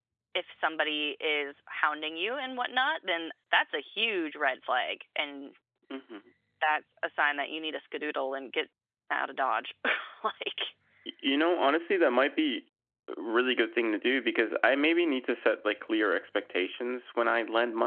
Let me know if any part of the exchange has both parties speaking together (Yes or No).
No